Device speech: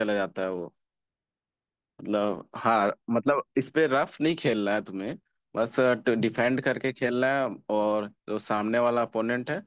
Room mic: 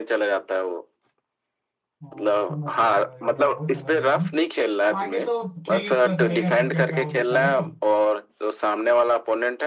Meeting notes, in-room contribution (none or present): present